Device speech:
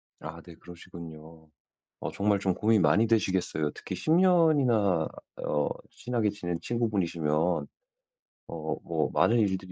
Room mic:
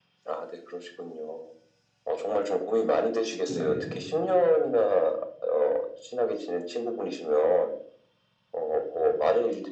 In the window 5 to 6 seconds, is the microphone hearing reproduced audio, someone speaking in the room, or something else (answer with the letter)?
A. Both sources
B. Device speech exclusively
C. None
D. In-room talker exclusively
B